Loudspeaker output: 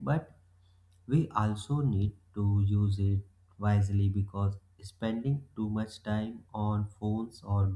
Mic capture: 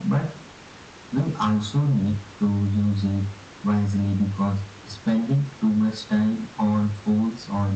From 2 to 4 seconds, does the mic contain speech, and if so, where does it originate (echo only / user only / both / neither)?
echo only